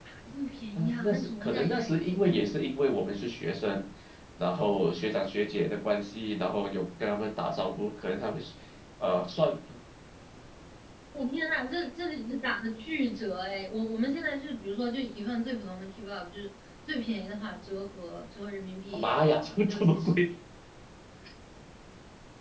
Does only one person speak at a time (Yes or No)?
No